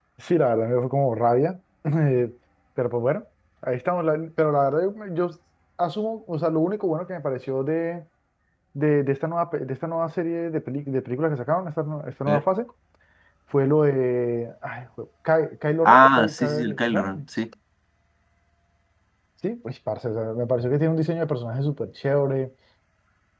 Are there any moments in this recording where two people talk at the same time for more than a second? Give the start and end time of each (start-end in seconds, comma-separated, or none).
15.8-17.1